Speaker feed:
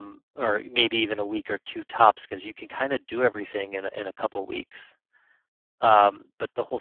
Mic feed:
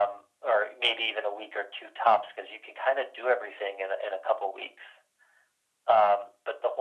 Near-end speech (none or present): none